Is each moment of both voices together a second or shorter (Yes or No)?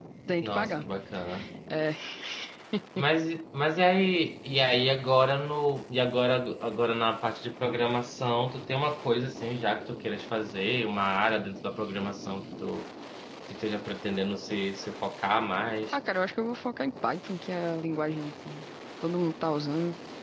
Yes